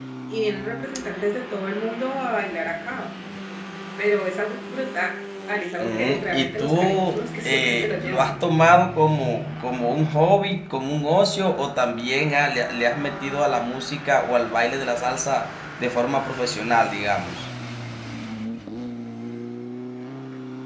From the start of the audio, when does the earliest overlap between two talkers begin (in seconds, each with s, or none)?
5.8 s